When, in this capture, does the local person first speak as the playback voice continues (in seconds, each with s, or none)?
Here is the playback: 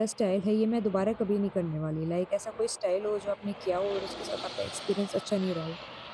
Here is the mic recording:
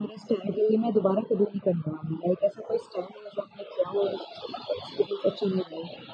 none